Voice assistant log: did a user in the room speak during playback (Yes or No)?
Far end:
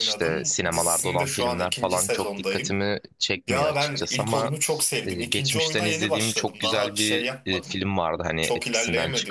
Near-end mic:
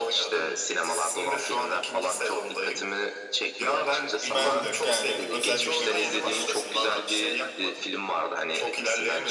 Yes